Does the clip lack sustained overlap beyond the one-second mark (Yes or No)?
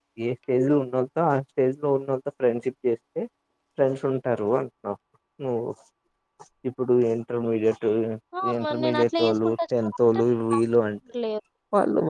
No